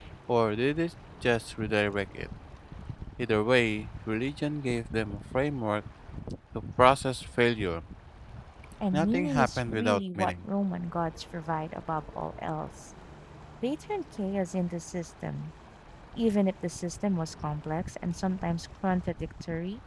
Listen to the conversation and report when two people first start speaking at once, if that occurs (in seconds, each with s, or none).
8.9 s